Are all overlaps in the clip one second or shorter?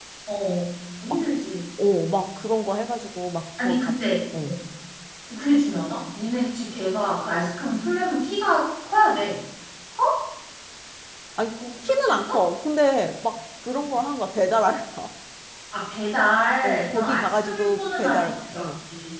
No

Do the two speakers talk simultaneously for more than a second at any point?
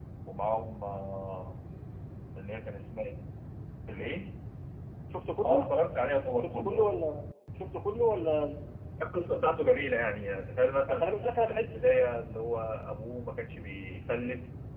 No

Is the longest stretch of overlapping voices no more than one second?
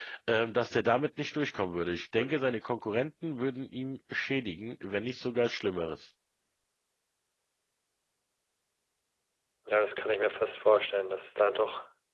Yes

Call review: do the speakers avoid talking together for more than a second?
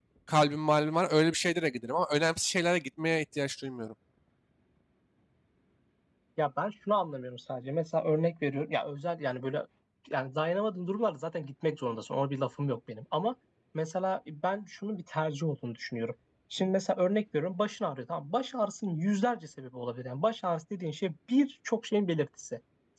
Yes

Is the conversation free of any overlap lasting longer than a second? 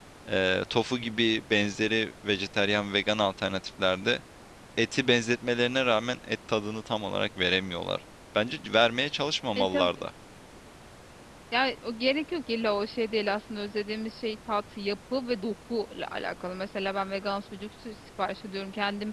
Yes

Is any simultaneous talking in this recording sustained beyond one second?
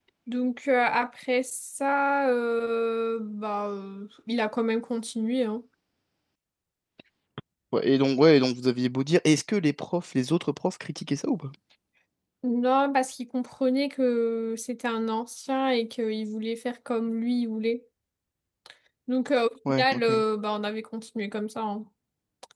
No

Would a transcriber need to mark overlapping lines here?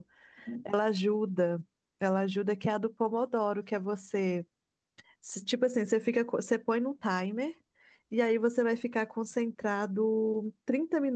No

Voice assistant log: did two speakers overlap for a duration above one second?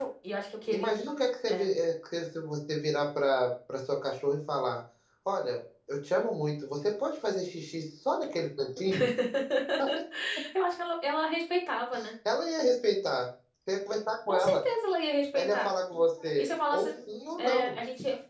No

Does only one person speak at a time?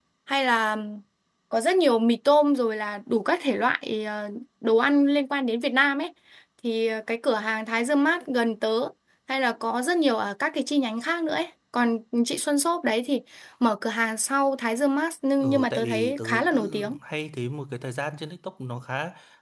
No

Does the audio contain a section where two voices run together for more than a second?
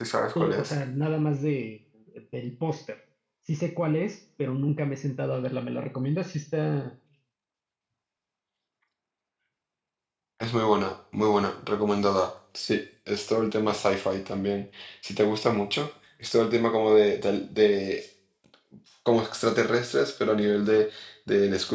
No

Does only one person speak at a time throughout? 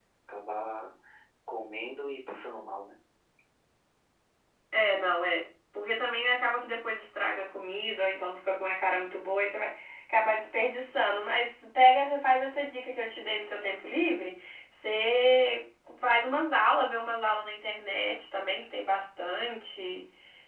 Yes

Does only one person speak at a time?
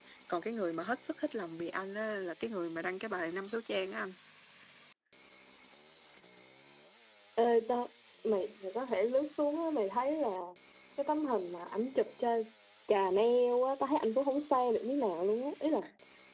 Yes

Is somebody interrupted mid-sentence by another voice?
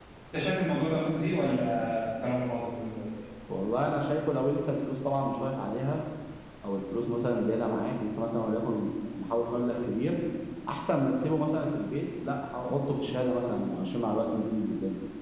No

